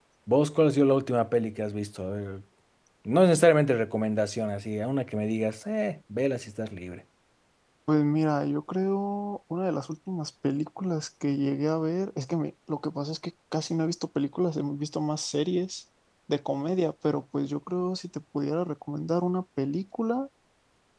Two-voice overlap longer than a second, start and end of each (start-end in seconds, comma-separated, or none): none